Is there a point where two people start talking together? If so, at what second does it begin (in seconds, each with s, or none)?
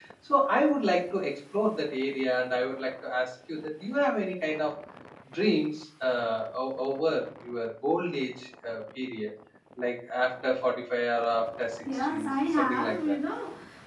11.8 s